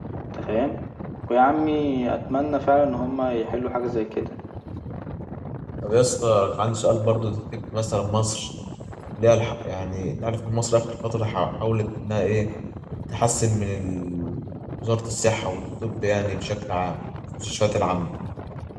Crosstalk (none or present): none